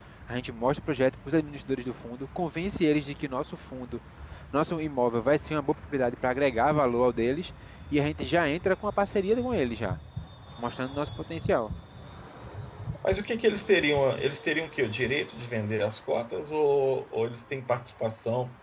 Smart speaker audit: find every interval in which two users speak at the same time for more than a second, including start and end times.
none

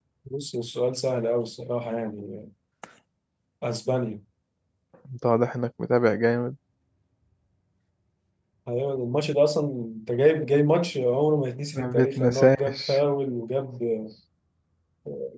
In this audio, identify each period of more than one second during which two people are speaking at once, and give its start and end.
11.8-13.0

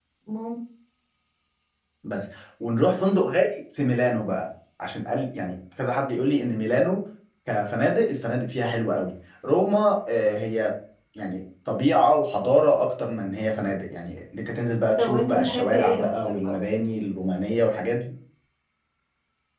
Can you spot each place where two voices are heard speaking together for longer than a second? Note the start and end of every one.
15.0-16.6

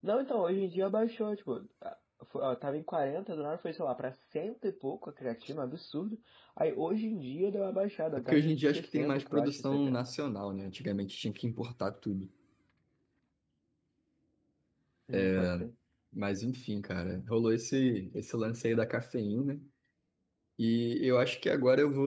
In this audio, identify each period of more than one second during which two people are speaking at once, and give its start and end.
8.2-10.0

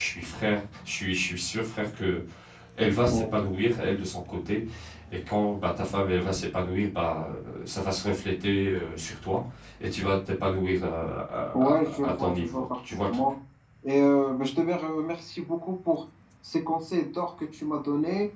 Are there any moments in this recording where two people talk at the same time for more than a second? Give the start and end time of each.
11.5-13.2

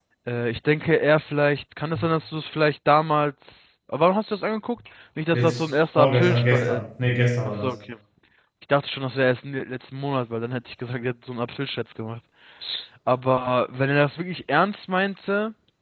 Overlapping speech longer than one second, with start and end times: 5.3-6.8

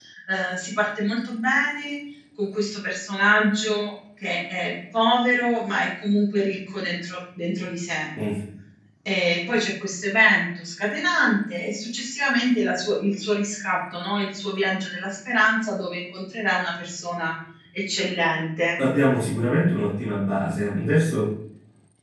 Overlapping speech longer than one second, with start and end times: none

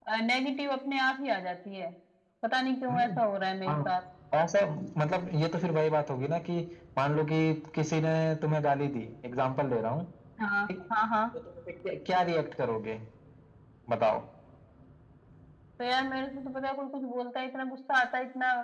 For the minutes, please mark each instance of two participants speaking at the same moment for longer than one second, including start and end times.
none

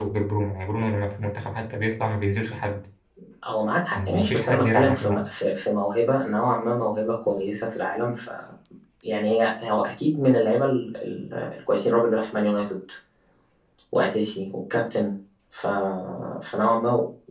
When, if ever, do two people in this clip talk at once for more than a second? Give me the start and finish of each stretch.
4.0-5.3

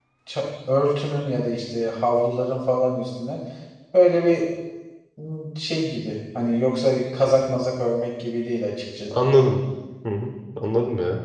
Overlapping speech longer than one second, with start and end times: none

